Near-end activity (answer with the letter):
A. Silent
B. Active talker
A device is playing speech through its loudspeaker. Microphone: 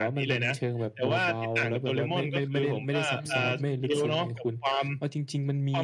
B